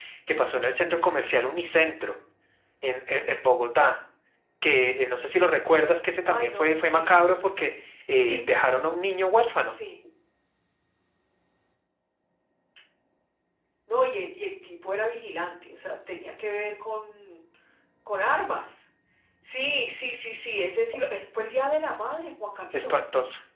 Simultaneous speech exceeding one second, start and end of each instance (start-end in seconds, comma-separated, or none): 6.3-7.5